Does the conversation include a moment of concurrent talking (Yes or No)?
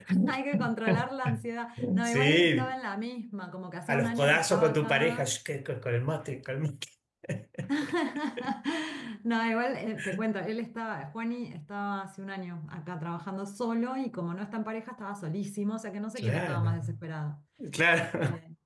Yes